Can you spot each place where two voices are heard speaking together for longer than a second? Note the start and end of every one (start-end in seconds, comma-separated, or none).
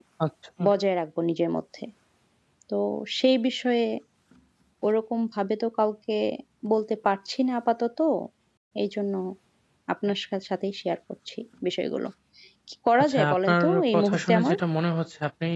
13.0-14.6